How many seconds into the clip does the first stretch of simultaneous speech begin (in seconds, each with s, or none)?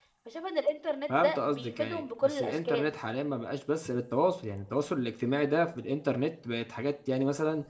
1.1 s